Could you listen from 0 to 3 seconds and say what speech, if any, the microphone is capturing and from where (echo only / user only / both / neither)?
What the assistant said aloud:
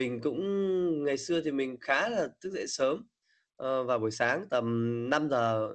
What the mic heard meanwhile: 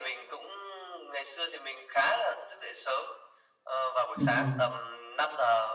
echo only